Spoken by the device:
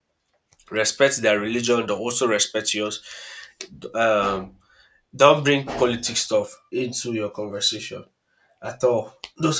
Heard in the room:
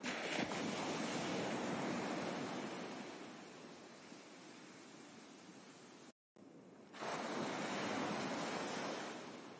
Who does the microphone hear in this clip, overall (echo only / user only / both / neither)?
neither